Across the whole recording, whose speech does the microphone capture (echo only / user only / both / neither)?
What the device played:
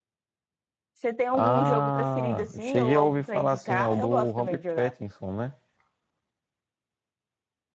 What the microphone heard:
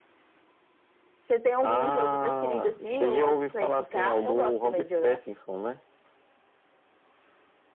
echo only